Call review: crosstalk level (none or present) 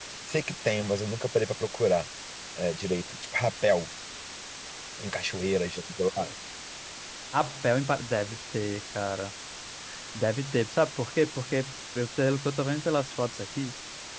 none